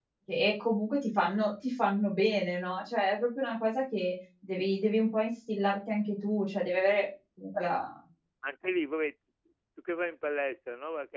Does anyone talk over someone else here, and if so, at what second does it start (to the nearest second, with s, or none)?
none